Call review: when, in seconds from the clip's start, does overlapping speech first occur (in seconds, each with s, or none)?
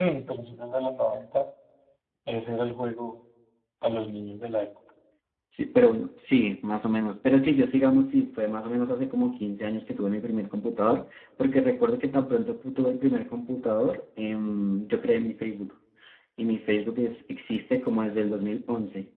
none